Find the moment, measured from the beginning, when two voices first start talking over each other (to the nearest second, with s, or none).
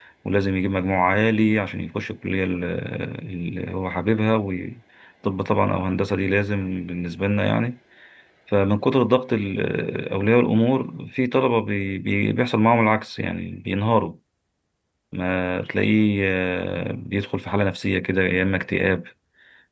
none